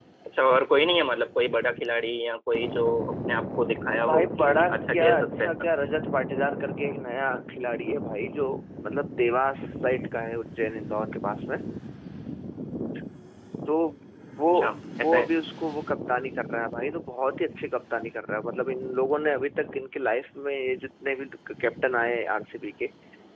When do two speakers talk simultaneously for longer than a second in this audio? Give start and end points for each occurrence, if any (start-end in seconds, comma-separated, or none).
4.1-5.5